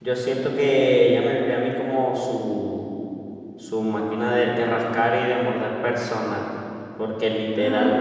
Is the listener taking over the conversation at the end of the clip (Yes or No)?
No